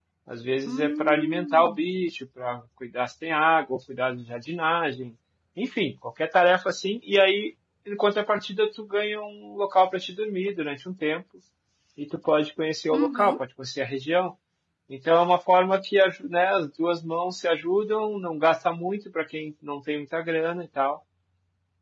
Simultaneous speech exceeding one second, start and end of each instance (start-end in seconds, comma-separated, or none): 0.7-1.9